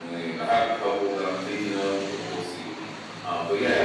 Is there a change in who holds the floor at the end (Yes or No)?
Yes